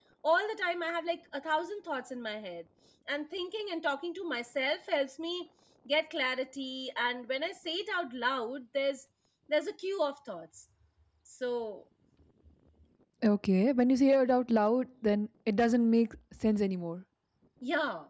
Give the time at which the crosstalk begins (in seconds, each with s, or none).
none